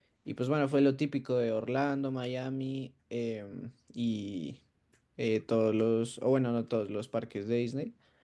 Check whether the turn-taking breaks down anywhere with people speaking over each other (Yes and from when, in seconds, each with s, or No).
No